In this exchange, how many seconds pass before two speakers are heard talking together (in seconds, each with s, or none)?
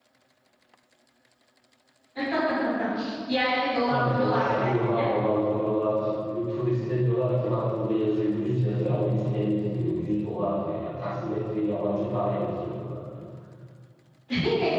3.9 s